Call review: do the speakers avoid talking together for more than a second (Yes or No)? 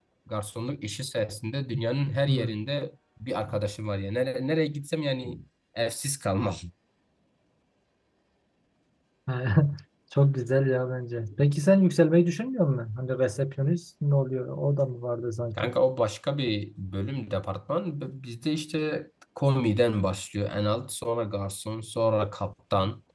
Yes